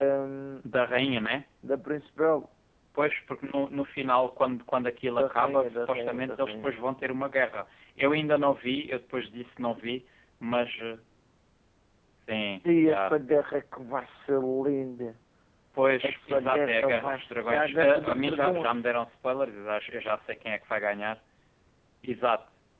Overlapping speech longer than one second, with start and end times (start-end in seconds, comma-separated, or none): 5.1-6.9, 16.0-18.8